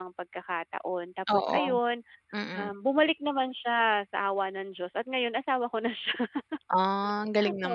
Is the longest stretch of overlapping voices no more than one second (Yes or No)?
Yes